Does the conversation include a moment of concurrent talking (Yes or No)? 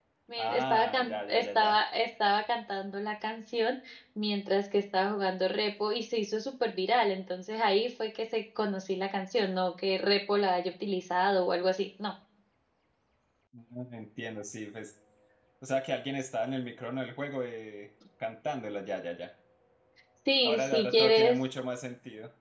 Yes